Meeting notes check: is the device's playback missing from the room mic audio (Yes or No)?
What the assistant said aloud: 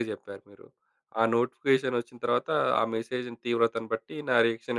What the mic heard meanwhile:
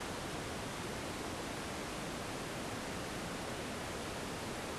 Yes